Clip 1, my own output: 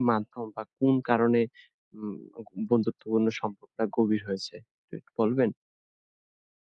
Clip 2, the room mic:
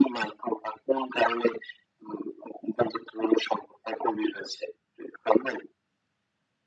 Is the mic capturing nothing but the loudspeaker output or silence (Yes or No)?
Yes